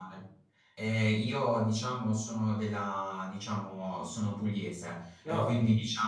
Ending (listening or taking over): listening